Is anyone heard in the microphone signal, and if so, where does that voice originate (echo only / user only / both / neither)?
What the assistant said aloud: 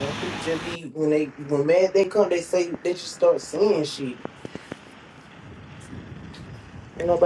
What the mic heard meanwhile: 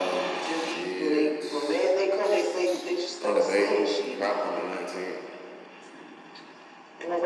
both